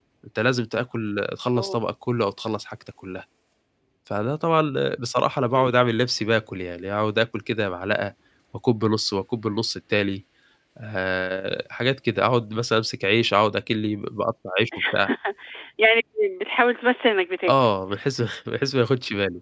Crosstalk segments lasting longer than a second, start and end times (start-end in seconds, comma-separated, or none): none